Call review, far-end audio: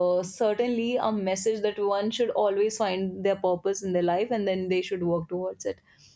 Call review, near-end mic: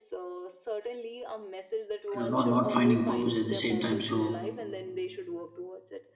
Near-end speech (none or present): present